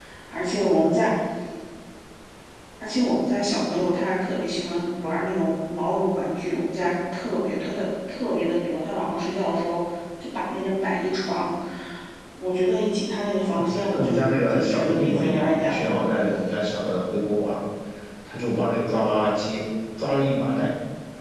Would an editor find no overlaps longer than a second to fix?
No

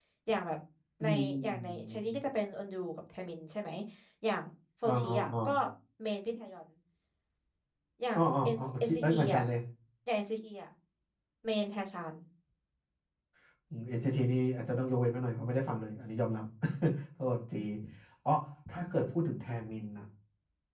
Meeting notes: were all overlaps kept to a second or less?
No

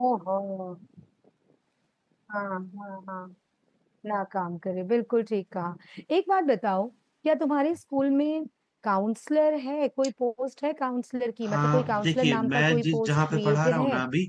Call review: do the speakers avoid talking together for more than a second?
No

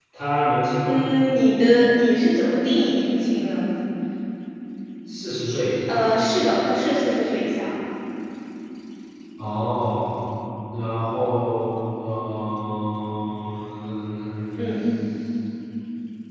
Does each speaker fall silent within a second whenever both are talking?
Yes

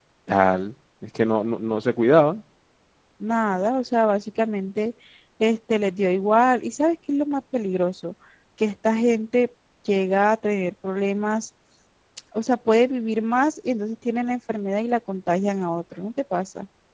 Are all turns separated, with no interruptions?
Yes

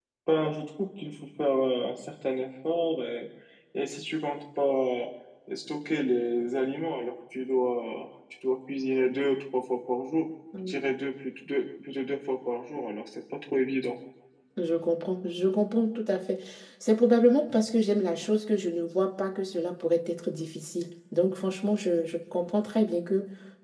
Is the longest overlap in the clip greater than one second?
No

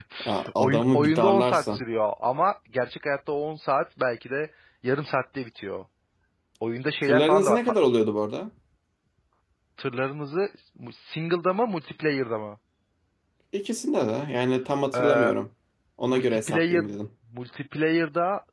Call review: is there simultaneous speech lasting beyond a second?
Yes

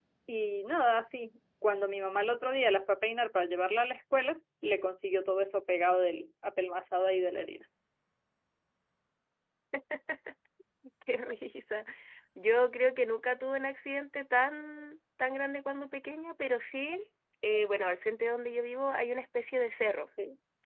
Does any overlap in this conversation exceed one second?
No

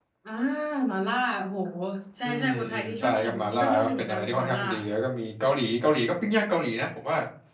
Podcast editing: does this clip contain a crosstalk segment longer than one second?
Yes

